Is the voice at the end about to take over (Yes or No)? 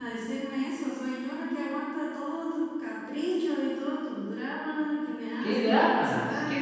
Yes